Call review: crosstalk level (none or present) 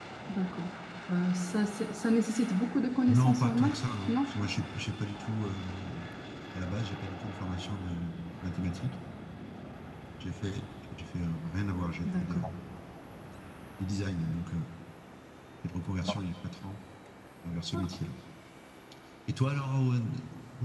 present